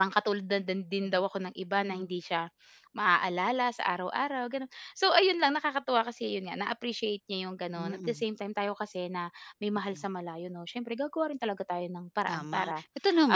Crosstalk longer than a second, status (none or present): none